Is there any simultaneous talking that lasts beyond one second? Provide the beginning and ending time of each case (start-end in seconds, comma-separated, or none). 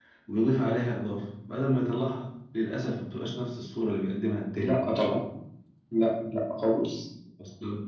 none